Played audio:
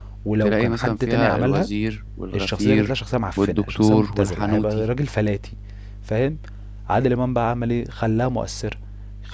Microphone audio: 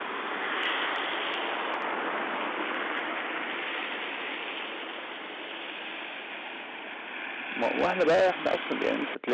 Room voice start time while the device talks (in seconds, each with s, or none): 7.5 s